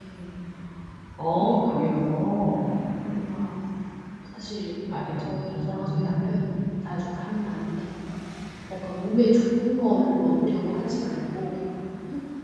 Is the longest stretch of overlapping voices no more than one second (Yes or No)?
No